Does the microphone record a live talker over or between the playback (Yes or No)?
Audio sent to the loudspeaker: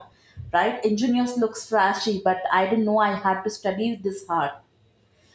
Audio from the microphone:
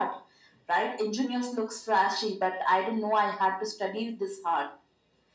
No